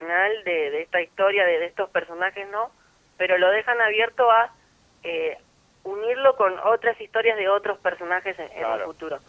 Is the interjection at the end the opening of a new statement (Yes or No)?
Yes